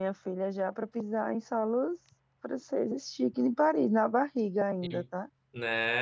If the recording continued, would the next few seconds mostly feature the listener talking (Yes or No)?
Yes